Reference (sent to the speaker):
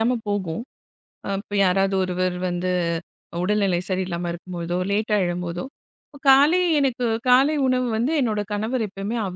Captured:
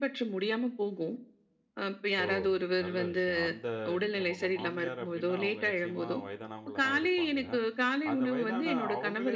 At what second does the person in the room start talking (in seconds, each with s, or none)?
2.2 s